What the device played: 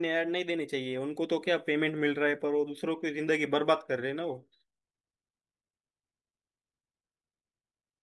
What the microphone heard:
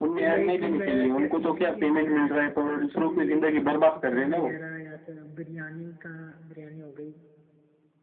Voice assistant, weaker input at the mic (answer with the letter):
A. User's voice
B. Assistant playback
A